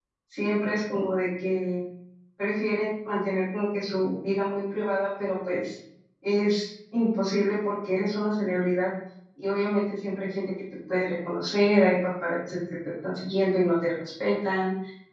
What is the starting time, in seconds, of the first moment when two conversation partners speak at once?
none

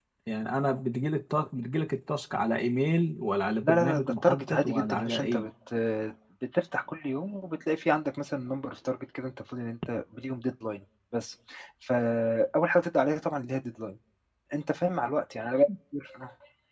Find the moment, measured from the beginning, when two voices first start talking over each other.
4 s

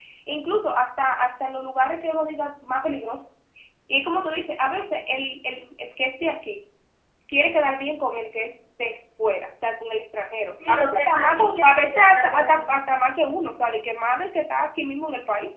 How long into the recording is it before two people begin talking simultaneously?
11 s

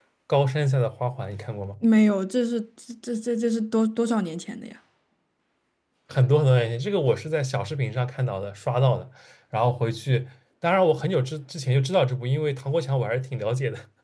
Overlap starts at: none

